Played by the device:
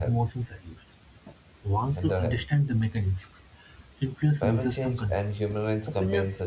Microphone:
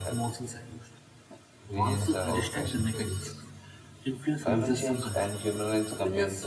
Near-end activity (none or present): present